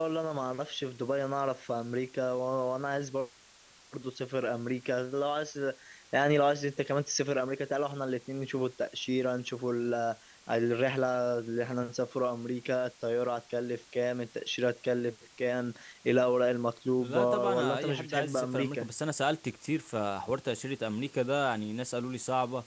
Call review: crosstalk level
present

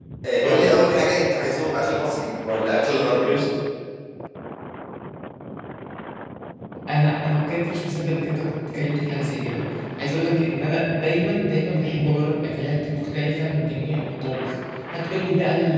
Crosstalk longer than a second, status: none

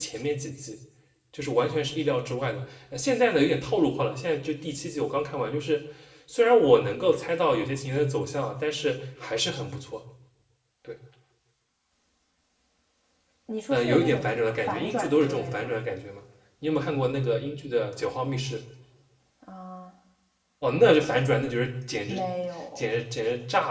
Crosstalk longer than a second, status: present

